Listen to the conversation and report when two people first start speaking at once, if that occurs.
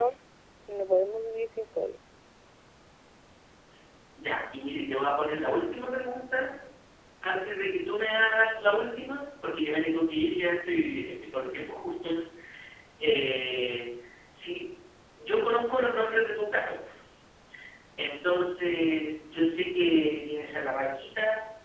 none

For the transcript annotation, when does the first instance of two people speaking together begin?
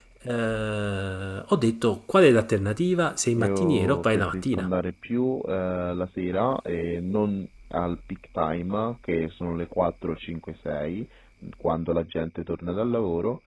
3.4 s

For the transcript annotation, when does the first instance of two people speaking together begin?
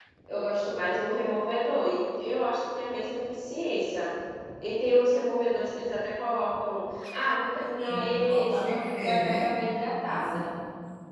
7.8 s

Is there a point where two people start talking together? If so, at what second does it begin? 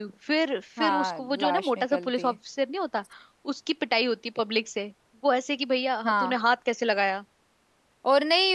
0.8 s

